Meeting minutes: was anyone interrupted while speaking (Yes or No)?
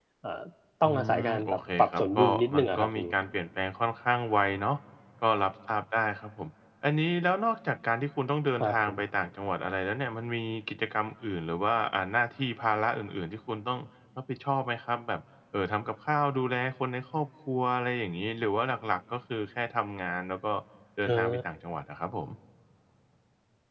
Yes